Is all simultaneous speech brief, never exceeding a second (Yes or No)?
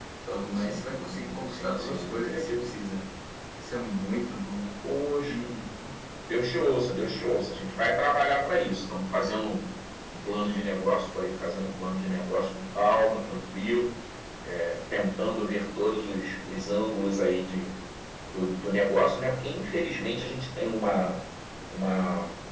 No